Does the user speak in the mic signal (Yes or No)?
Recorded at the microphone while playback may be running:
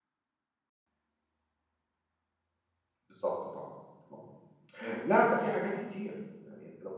Yes